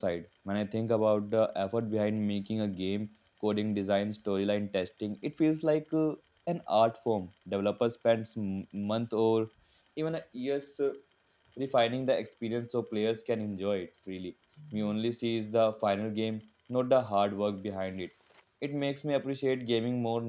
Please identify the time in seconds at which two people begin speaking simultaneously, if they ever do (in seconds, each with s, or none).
none